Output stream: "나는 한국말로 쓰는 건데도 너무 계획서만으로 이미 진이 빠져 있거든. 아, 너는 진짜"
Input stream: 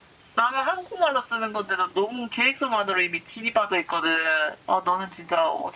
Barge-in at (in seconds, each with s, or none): none